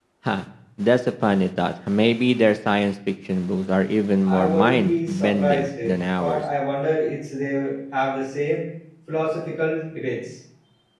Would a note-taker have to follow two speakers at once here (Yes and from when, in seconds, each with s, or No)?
Yes, from 4.2 s